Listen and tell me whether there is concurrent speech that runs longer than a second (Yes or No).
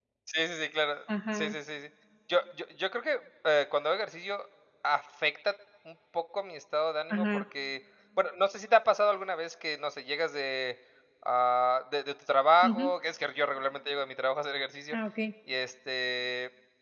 No